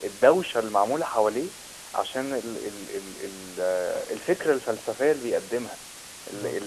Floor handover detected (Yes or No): No